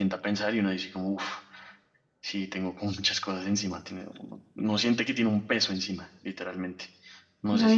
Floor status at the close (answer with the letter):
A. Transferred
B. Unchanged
A